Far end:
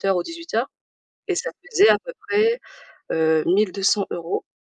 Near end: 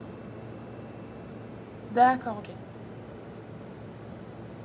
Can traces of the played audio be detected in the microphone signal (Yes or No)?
No